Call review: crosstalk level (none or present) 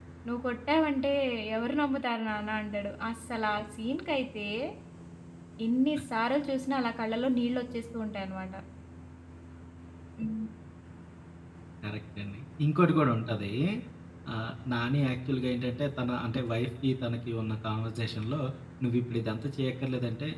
none